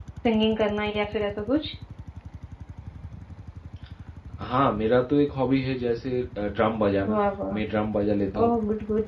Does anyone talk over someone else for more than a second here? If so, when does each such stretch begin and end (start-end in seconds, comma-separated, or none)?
none